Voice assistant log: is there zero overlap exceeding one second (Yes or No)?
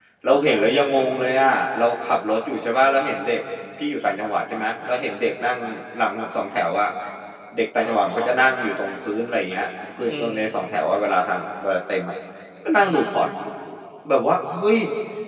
Yes